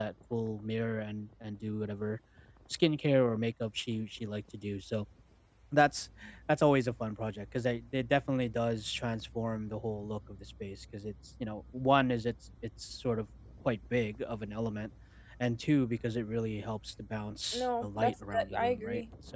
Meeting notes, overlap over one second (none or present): present